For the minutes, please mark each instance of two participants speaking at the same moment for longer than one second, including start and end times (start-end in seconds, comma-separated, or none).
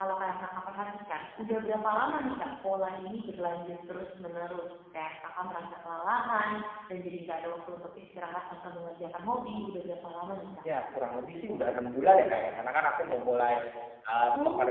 none